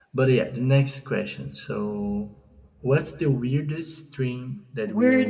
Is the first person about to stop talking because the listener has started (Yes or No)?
Yes